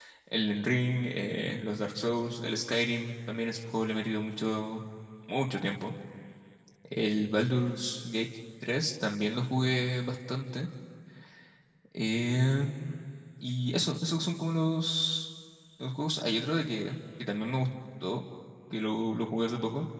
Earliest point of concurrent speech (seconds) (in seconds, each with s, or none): none